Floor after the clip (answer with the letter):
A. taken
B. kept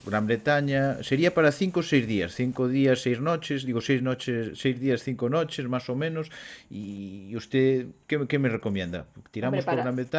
B